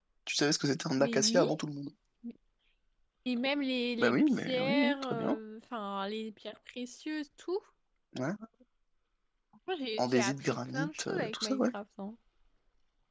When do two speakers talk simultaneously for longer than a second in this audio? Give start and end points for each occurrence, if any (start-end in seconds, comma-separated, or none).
4.0-5.4, 10.0-11.6